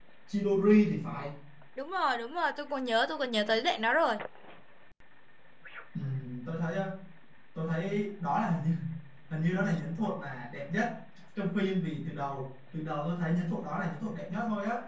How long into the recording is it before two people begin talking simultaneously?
none

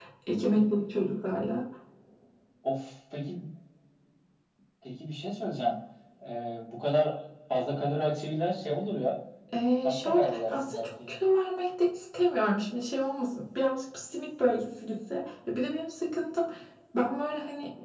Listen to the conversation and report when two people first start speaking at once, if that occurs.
9.8 s

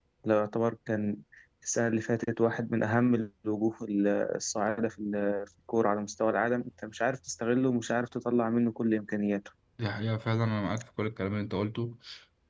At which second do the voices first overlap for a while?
none

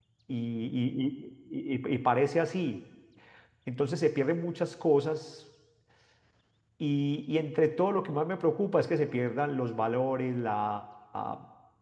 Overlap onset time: none

